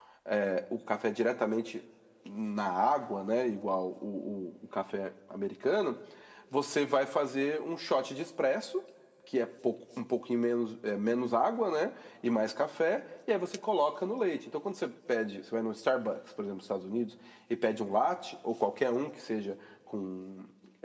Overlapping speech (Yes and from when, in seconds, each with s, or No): No